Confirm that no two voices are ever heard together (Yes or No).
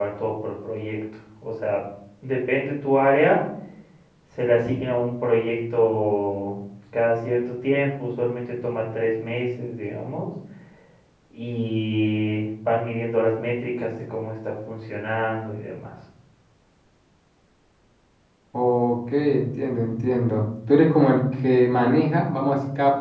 Yes